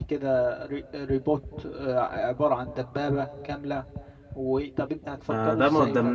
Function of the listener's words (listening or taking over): taking over